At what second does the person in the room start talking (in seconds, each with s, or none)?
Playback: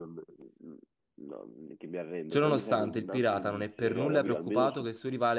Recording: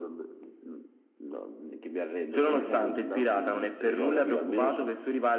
none